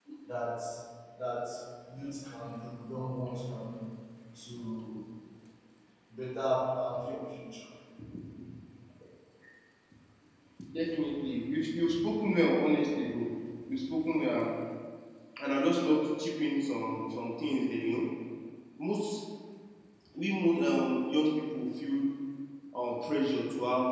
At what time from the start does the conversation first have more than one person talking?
none

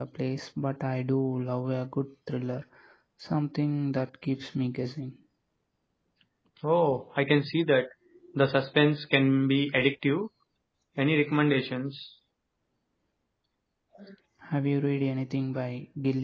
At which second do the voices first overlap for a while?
none

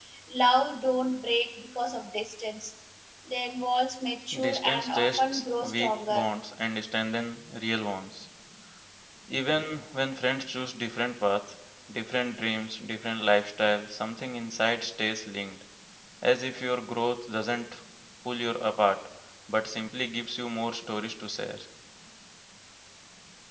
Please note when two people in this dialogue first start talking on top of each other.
4.3 s

